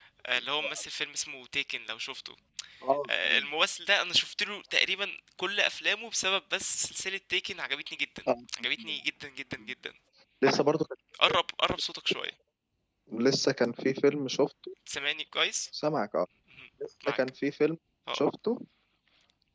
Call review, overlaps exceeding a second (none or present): none